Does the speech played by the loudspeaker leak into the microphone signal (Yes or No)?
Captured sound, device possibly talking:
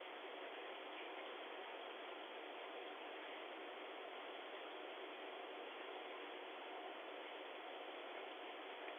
No